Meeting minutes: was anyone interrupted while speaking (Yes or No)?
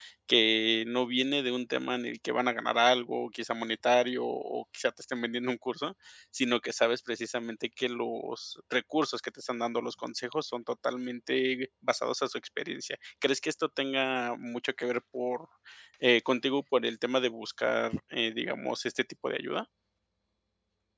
No